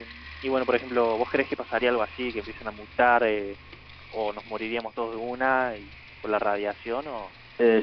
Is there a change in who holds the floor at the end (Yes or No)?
Yes